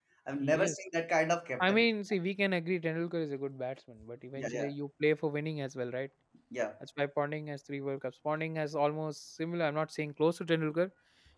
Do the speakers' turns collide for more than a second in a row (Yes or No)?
No